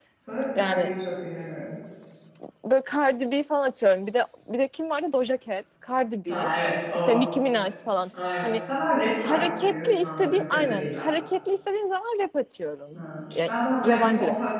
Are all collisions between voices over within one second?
No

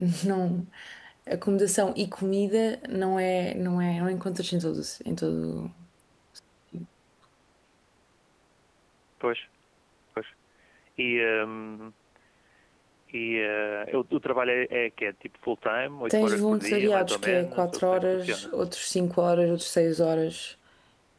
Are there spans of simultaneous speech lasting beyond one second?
Yes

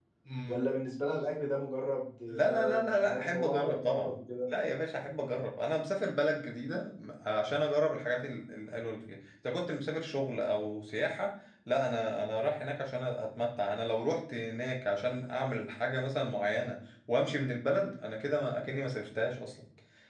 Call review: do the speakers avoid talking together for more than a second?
No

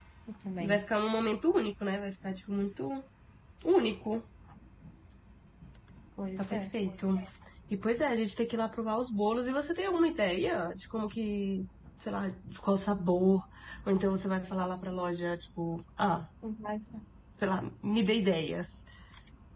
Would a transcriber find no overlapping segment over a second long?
Yes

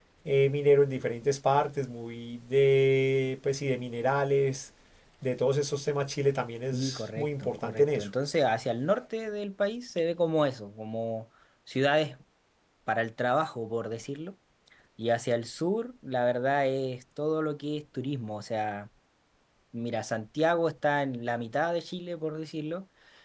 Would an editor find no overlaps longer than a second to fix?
No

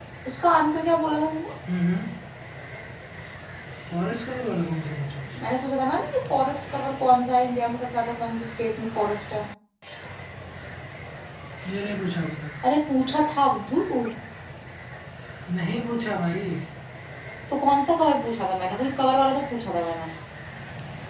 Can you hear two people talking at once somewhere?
No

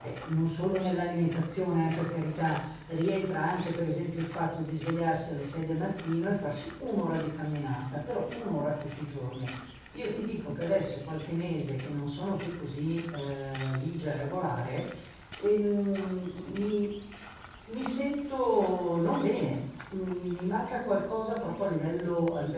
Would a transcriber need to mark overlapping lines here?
No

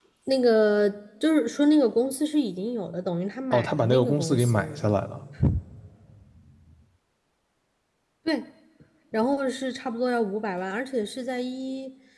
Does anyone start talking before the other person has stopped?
Yes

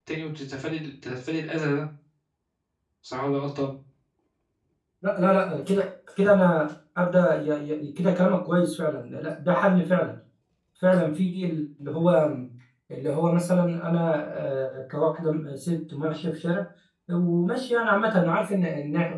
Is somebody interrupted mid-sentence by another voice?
No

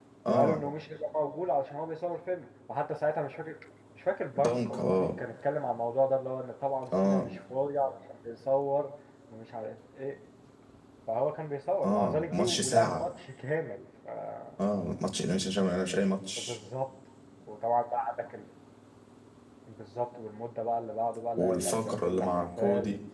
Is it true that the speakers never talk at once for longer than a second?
No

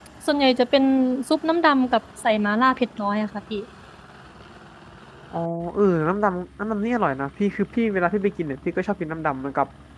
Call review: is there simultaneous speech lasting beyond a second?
No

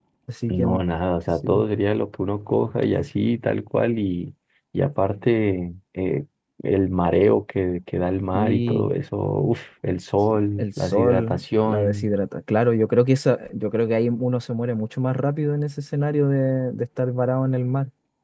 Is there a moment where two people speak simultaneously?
Yes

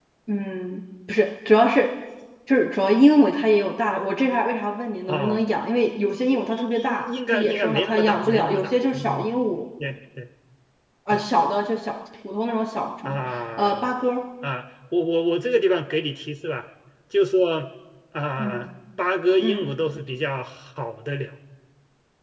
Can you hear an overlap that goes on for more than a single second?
Yes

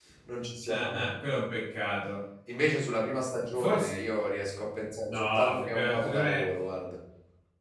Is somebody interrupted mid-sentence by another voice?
Yes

